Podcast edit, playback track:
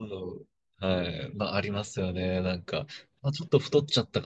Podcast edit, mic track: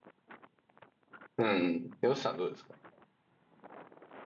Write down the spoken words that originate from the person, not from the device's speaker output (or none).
うん。よしさんどうですか